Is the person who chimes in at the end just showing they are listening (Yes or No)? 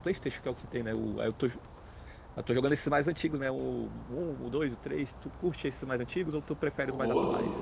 No